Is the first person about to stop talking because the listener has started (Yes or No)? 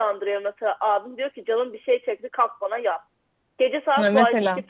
No